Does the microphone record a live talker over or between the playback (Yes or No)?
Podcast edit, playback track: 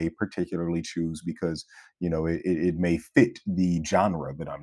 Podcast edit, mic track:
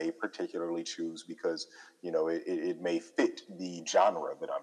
No